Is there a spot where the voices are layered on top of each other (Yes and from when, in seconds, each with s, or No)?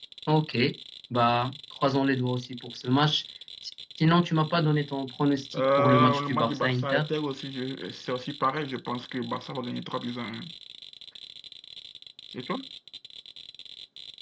Yes, from 5.5 s